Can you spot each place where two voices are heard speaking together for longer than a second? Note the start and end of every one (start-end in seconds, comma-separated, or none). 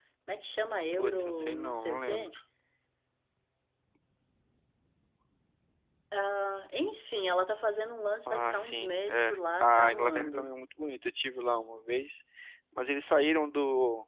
0.9-2.3, 8.3-10.5